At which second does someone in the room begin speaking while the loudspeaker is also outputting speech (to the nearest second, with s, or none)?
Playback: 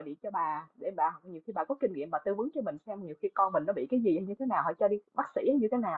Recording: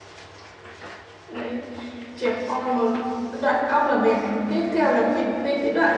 1 s